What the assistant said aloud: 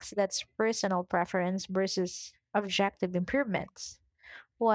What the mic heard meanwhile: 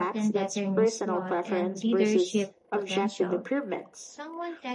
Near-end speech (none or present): present